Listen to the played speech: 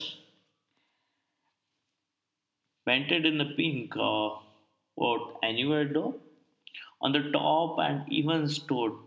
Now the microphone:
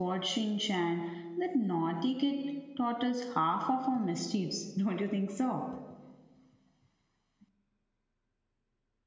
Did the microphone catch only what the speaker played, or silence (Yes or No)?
No